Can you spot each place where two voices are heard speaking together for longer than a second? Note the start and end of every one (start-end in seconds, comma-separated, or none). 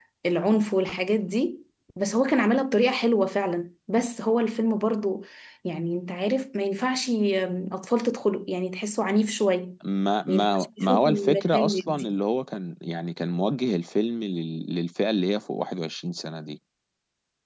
10.3-12.2